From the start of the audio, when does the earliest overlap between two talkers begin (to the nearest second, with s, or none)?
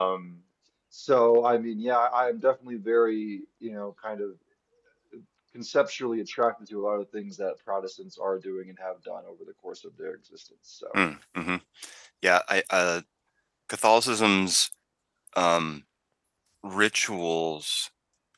none